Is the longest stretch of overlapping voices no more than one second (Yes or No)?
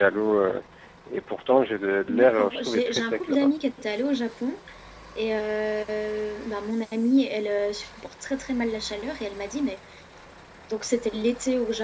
No